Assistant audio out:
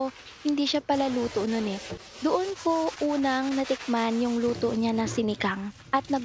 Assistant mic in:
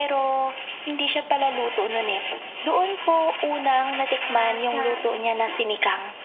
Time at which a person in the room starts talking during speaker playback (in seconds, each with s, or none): 4.2 s